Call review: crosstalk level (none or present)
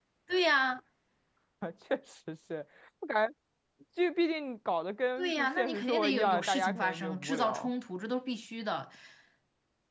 present